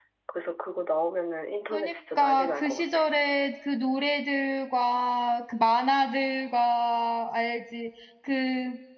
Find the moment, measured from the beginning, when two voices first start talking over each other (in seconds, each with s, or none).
1.7 s